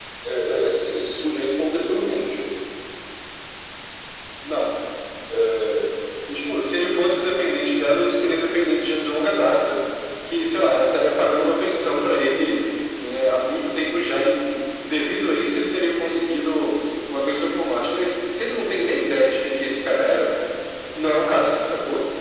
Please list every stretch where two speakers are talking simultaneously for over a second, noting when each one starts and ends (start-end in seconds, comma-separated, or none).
none